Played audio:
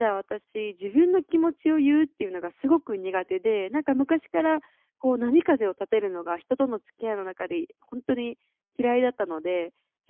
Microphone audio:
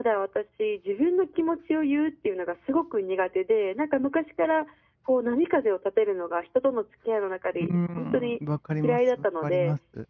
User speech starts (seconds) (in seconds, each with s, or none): 7.6 s